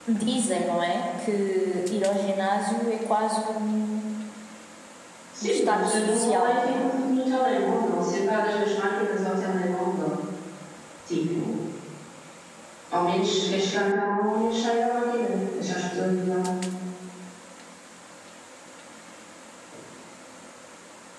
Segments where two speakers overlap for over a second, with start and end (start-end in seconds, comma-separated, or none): 5.4-6.8